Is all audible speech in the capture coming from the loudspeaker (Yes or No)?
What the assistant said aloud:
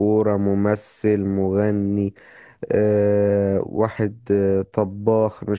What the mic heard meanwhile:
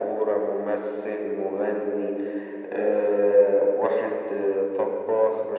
Yes